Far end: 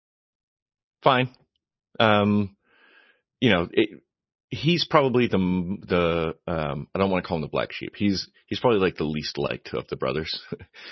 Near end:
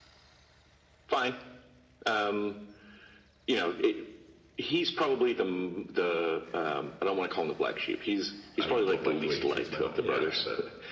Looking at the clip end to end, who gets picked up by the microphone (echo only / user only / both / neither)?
both